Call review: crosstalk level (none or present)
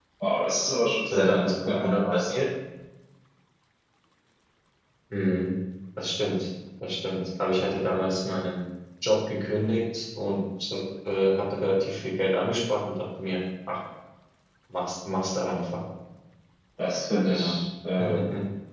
present